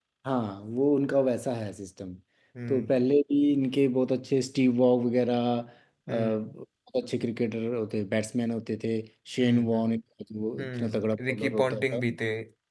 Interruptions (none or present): present